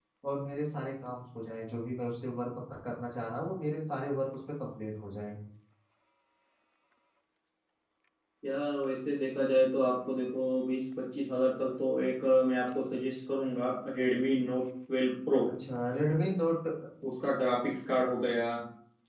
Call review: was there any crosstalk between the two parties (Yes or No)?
No